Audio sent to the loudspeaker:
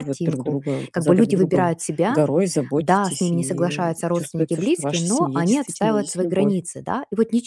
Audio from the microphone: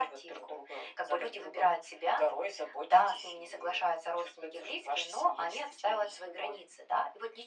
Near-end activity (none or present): none